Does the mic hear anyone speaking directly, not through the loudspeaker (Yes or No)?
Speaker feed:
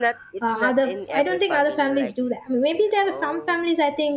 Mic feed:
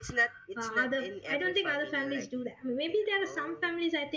No